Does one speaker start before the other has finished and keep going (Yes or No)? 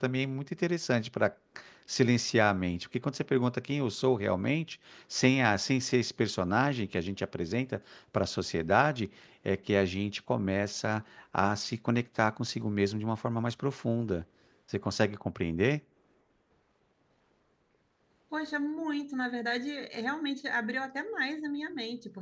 No